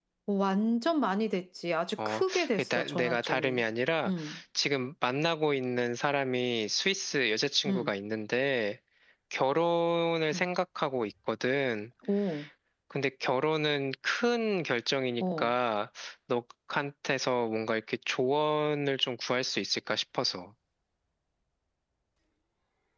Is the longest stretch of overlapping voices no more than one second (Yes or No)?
No